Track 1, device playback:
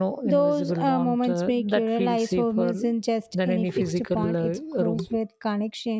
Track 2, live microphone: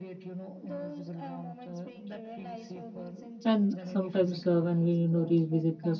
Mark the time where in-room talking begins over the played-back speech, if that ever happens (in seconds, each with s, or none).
3.4 s